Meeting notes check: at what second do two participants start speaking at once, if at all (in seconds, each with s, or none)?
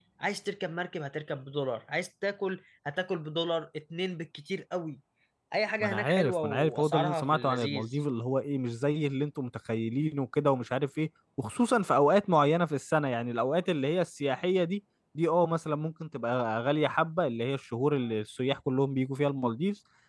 5.8 s